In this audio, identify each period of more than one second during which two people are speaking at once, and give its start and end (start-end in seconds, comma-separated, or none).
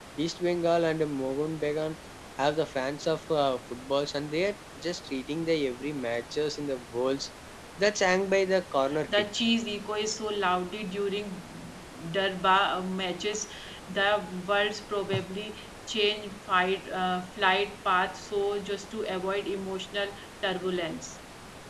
none